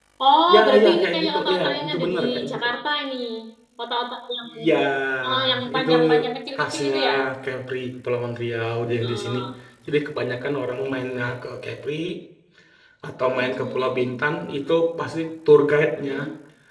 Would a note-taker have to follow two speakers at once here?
Yes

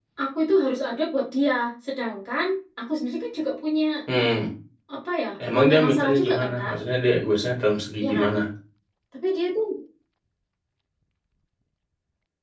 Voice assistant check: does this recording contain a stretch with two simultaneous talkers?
Yes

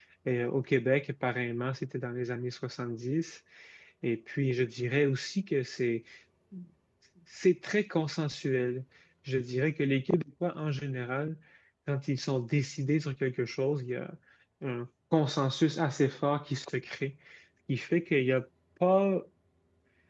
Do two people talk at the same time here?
No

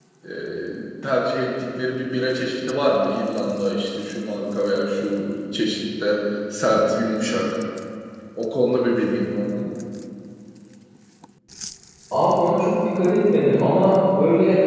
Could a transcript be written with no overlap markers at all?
Yes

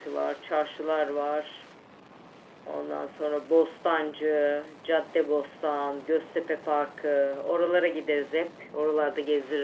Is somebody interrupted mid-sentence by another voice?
No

